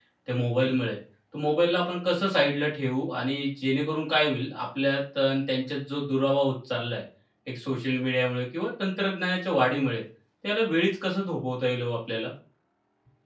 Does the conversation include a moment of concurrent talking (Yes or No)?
No